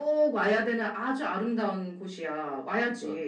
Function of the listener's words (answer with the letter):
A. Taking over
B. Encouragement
A